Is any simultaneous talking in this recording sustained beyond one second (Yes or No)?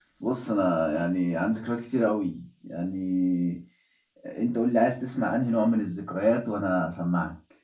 No